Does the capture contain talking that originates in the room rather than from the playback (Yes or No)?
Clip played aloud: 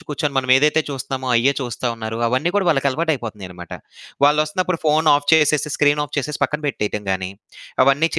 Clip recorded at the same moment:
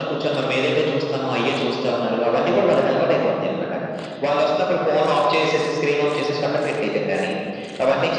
No